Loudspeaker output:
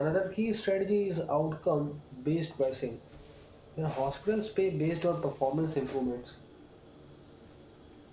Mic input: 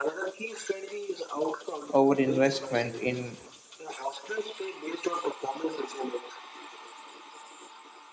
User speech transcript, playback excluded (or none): overinvestment in